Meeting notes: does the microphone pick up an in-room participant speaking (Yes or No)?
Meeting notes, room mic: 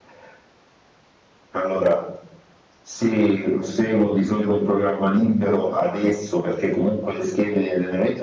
No